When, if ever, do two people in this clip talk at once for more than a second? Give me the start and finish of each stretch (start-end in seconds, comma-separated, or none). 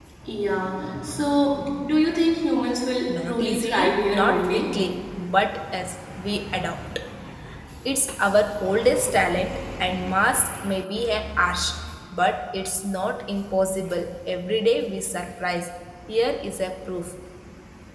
3.2-4.7